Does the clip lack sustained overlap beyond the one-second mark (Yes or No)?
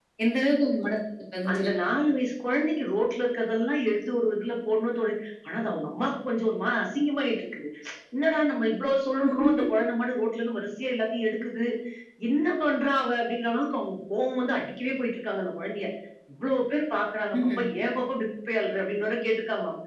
Yes